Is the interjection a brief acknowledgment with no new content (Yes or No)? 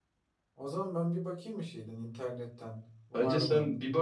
No